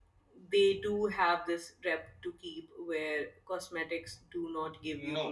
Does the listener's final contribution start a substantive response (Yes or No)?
Yes